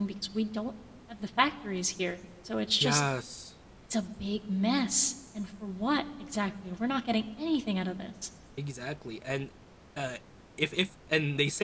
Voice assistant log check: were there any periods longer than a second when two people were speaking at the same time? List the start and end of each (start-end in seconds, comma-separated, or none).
none